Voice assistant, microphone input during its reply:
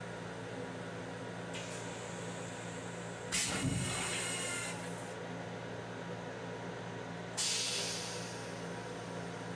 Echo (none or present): none